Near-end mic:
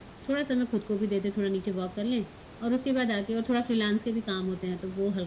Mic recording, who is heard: echo only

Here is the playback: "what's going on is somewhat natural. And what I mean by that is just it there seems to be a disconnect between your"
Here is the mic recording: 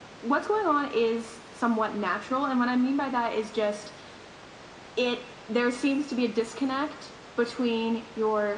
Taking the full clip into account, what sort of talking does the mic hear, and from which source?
echo only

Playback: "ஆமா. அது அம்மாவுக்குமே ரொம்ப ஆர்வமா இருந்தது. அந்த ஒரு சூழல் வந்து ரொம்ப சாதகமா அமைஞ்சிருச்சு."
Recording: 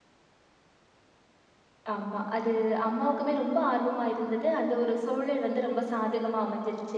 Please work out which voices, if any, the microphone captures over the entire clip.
echo only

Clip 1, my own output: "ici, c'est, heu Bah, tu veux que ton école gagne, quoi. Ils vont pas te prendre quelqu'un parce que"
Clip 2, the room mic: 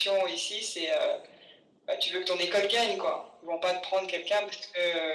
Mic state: echo only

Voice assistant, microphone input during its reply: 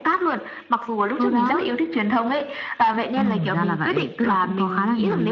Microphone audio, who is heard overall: both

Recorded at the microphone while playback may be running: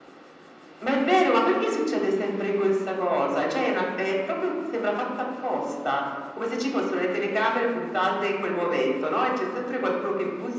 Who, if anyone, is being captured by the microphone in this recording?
echo only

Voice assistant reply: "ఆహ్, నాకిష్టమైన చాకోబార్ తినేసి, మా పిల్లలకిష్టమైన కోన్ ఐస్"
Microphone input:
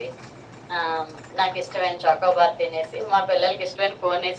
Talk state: echo only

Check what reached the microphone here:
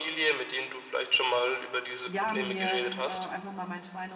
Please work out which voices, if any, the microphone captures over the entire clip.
both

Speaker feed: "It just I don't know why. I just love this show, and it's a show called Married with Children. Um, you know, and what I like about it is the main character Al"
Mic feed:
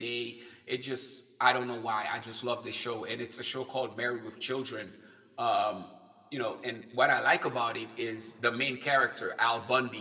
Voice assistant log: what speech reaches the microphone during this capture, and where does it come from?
echo only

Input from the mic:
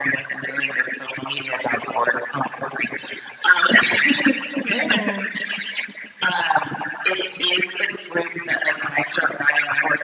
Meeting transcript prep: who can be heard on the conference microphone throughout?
both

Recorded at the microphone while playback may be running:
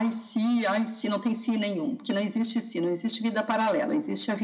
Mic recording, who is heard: echo only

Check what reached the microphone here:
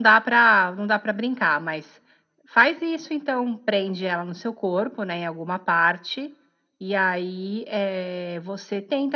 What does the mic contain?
echo only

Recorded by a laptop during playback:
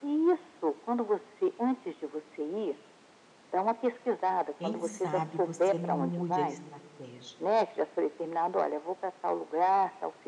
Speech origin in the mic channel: both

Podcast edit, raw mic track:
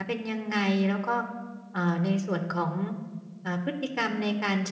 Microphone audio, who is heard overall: user only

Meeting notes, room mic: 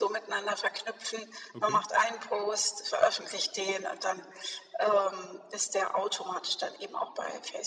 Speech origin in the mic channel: both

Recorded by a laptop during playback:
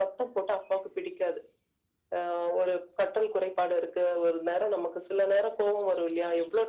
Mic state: echo only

